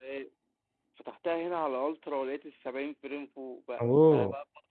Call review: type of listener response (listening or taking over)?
listening